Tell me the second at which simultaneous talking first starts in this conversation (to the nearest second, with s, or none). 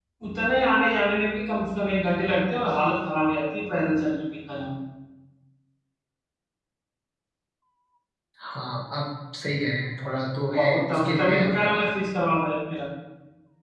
11 s